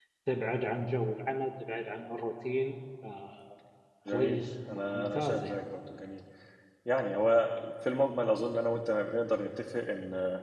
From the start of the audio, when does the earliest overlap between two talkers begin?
4 s

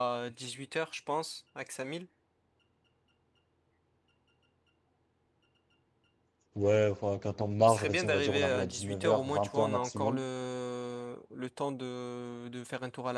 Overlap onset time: 8 s

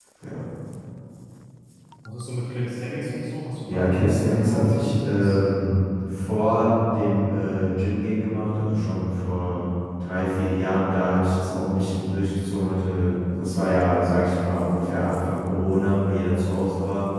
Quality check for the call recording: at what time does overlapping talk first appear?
4 s

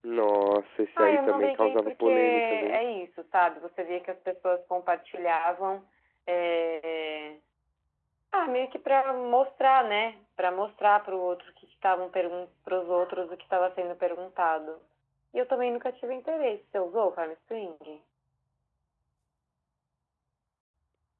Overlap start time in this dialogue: 1 s

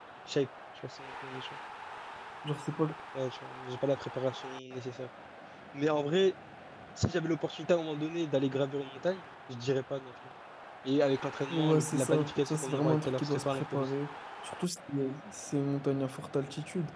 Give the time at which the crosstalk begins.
11 s

